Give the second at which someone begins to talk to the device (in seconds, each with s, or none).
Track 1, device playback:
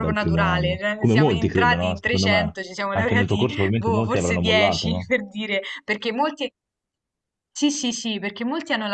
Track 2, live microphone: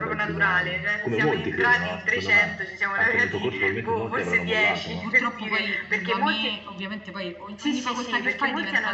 5.0 s